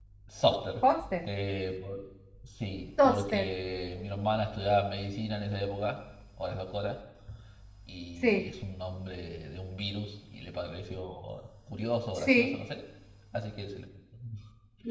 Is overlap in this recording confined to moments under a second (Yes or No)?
Yes